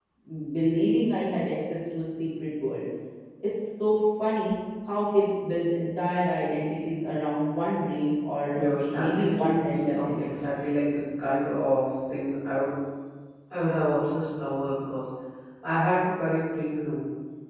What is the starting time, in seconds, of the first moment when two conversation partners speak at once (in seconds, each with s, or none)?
8.5 s